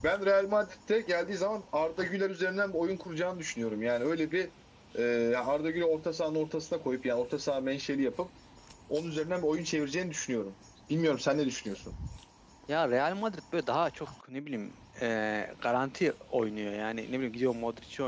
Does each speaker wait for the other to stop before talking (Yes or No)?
Yes